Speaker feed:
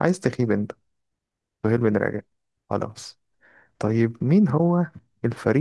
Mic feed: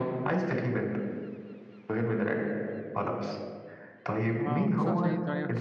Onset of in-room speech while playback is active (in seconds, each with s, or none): 4.4 s